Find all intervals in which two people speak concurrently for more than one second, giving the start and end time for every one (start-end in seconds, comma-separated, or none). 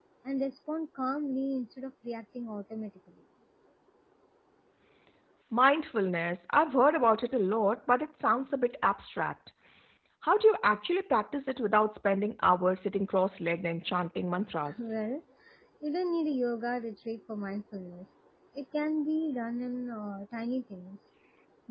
none